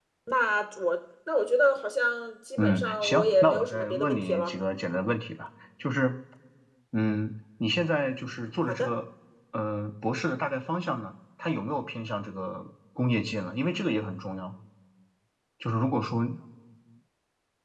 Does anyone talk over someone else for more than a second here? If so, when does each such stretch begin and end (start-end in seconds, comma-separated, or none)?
2.6-4.5